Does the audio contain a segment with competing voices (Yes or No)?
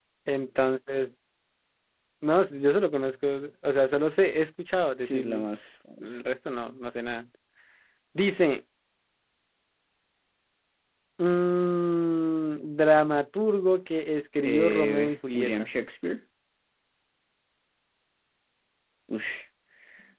Yes